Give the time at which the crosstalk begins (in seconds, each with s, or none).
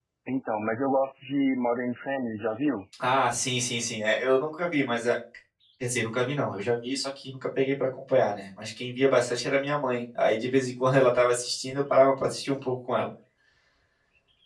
none